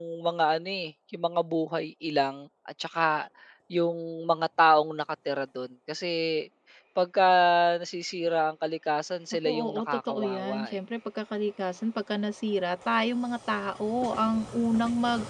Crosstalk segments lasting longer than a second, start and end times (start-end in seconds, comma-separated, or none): 9.4-10.8